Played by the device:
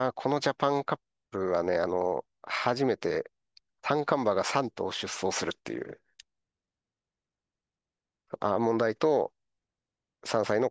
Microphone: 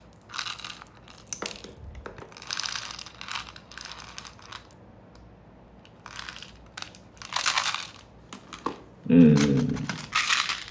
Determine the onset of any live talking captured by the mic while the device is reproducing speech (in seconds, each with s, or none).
9.1 s